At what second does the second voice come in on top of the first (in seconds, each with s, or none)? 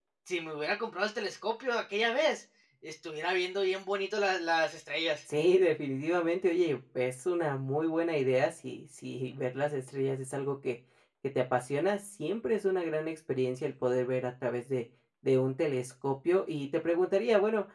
none